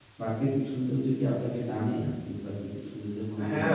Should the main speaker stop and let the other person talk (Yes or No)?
Yes